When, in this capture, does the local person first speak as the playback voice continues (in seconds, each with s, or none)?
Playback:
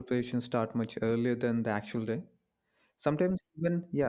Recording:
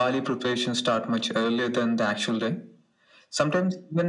none